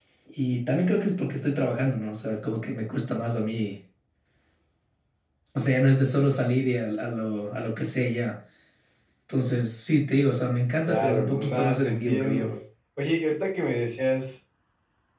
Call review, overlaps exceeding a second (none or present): present